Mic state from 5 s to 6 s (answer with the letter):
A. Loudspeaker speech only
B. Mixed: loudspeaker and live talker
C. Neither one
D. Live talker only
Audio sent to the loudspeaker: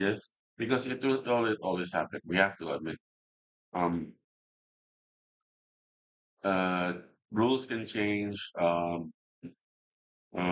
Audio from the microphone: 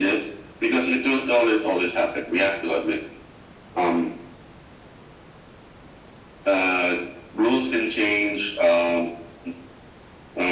C